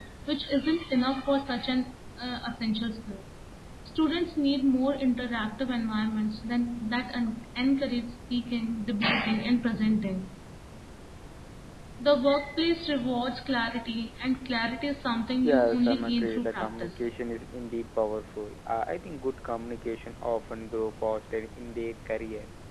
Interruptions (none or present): present